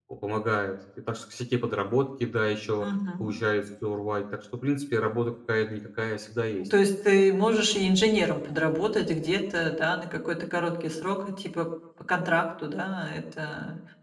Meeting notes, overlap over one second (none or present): none